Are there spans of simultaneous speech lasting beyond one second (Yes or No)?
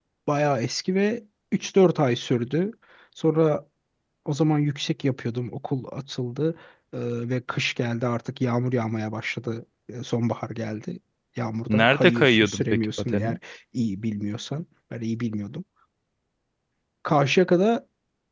Yes